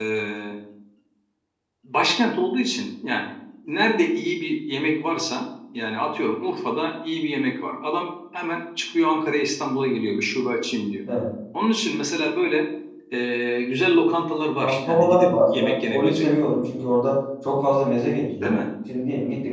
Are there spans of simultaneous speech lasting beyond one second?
Yes, from 14.6 s

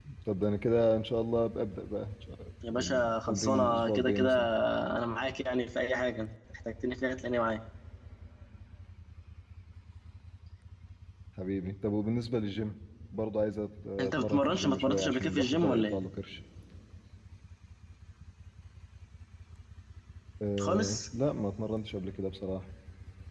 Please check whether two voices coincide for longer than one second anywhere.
Yes, from 2.7 s

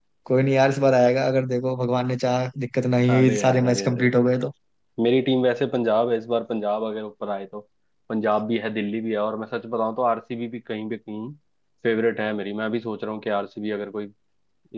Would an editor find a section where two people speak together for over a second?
Yes, from 3.1 s

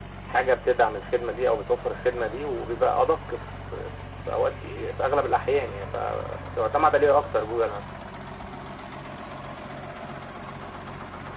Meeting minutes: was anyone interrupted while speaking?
No

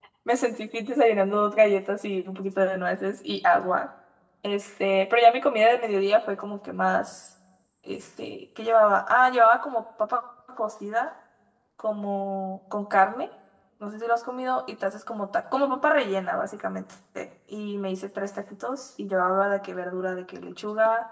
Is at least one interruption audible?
No

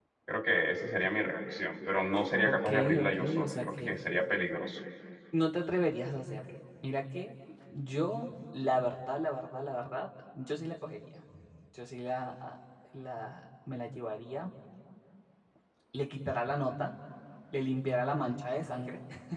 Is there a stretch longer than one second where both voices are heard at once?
Yes, from 2.4 s

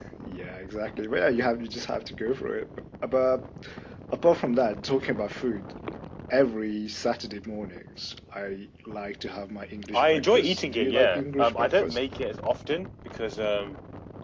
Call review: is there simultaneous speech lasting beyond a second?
Yes, from 9.9 s

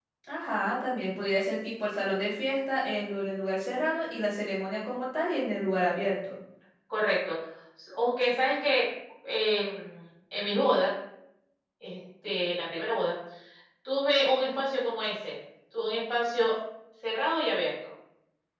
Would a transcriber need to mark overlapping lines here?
No

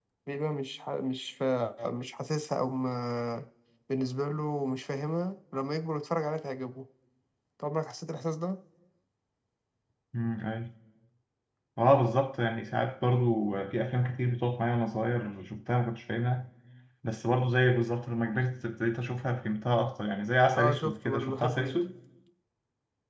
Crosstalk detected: Yes, from 20.6 s

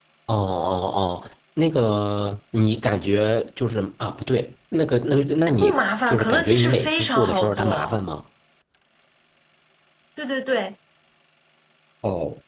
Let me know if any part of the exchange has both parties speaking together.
Yes, from 5.6 s

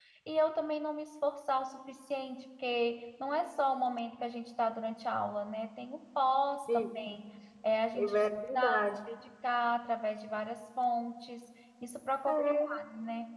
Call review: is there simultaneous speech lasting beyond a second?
No

